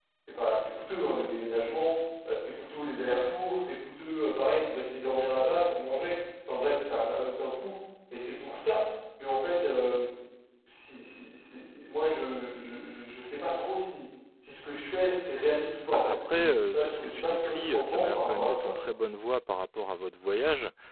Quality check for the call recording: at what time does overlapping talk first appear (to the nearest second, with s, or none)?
16 s